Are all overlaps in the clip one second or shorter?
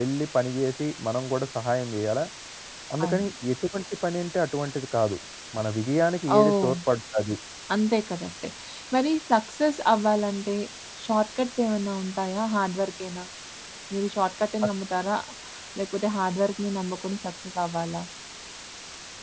Yes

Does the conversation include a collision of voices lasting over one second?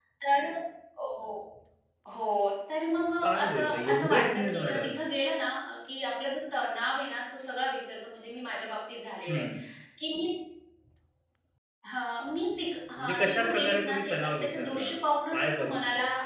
Yes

